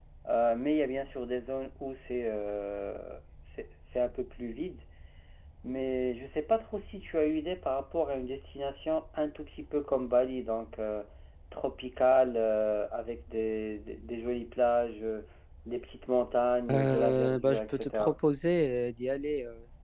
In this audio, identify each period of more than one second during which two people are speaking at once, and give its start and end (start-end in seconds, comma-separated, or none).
16.7-18.1